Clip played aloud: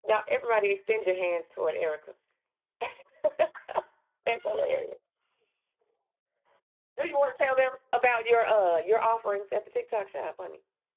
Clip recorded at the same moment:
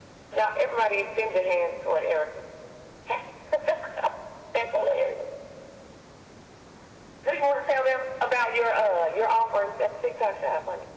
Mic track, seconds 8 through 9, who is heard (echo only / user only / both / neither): echo only